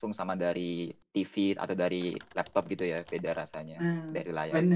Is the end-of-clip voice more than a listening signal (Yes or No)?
Yes